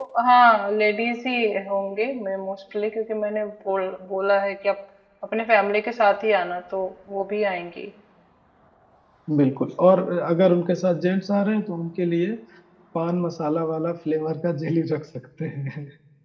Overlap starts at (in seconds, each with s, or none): none